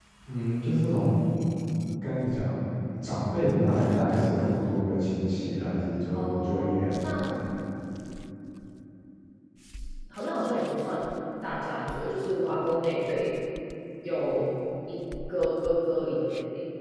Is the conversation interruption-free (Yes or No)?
No